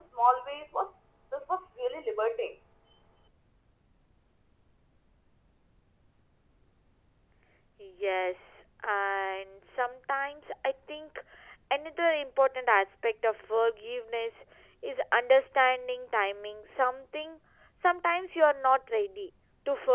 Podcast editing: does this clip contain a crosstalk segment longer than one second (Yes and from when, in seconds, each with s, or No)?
No